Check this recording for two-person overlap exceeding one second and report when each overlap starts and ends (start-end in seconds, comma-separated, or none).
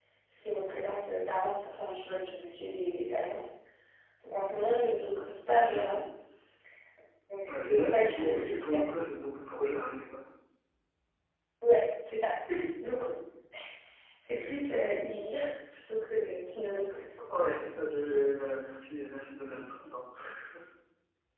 7.5-8.8